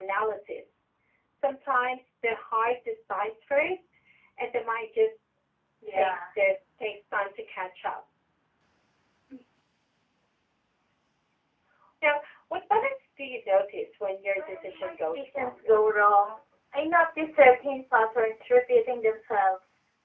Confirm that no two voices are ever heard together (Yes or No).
No